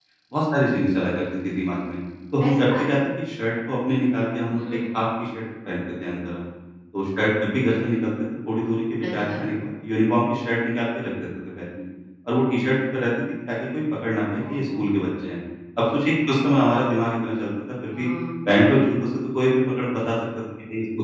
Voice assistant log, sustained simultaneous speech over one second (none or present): none